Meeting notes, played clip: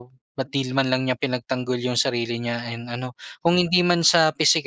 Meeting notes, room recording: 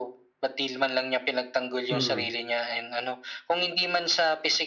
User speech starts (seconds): 1.9 s

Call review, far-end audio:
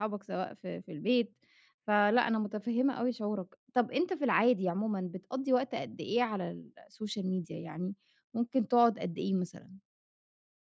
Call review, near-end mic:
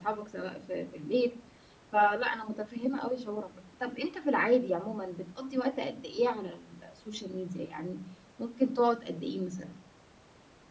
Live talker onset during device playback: none

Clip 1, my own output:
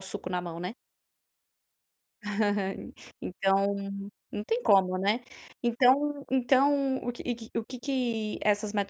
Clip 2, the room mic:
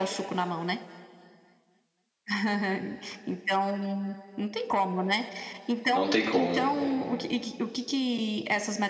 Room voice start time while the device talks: 5.9 s

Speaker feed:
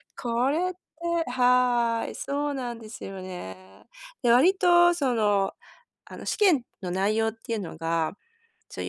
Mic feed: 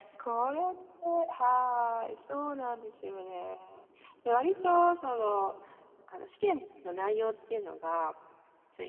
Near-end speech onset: none

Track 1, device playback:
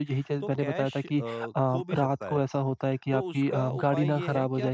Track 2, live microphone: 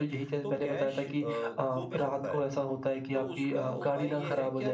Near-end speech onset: none

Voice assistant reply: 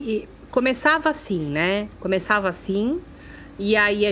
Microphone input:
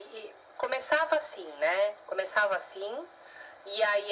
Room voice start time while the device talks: none

